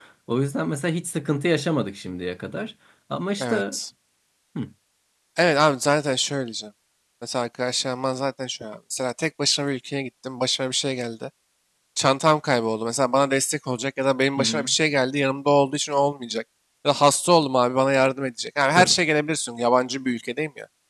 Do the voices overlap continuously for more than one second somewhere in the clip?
No

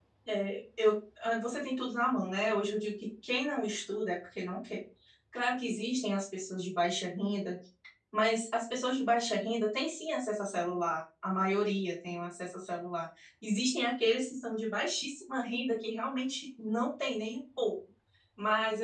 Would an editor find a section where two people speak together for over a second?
No

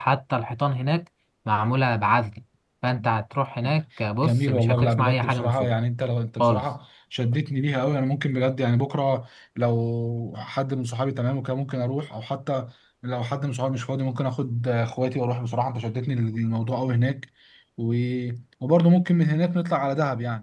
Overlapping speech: Yes, from 4.2 s

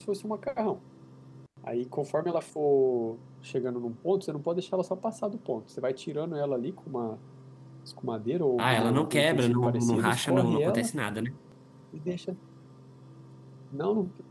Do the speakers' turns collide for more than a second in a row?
Yes, from 8.6 s

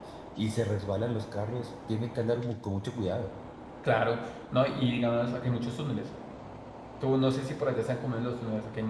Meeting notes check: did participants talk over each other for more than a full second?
No

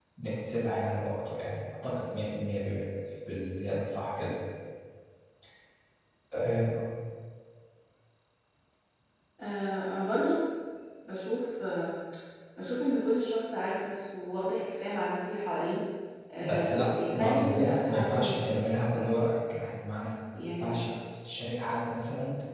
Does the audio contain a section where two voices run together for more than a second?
Yes, from 16.4 s

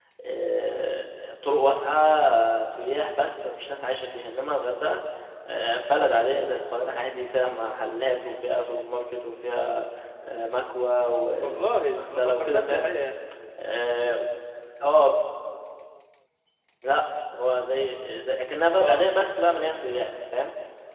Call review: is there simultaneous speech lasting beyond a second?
Yes, from 11.4 s

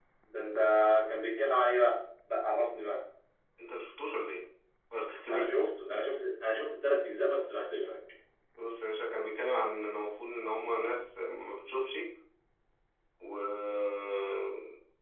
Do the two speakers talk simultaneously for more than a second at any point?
No

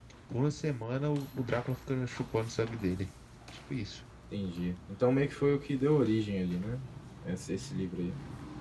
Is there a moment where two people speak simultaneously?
No

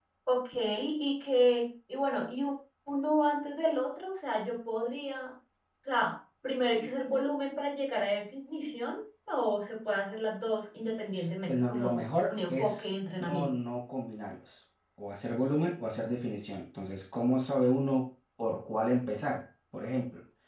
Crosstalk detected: Yes, from 11.5 s

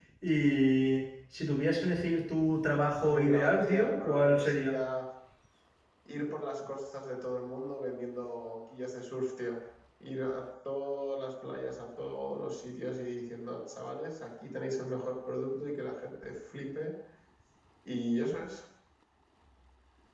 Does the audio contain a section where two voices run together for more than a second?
Yes, from 3.0 s

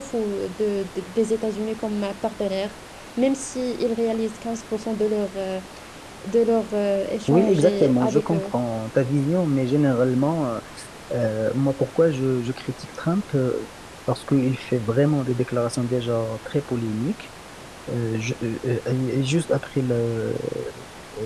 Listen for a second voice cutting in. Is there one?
Yes, from 7.3 s

